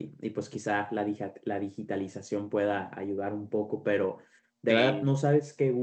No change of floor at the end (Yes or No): Yes